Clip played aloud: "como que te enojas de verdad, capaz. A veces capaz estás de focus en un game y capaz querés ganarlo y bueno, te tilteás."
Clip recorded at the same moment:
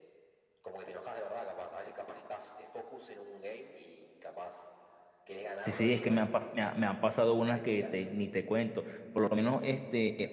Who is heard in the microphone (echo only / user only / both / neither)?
both